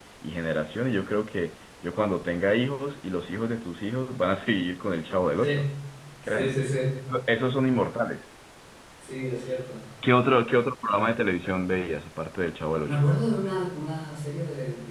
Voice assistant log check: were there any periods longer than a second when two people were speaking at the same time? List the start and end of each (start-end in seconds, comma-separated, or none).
none